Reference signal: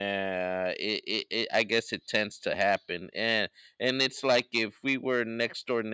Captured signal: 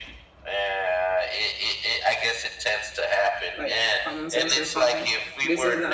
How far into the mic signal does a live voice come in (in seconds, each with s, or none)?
3.5 s